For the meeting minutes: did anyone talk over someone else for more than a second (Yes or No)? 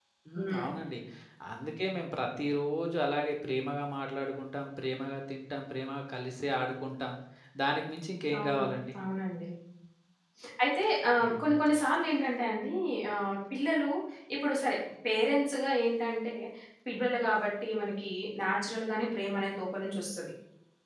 No